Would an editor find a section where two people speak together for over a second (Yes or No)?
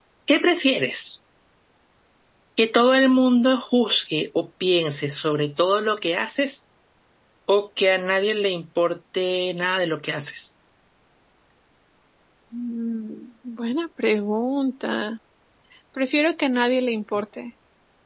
No